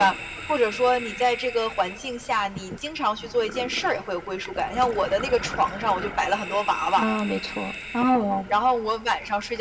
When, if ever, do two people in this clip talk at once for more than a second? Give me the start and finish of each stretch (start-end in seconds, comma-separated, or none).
none